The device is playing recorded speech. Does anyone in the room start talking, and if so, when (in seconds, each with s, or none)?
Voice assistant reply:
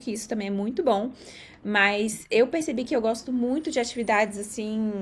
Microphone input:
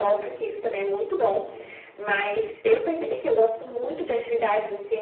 none